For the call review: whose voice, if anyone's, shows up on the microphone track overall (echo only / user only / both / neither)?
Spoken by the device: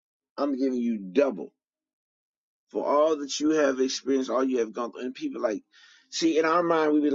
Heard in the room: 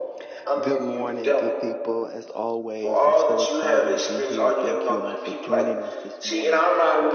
both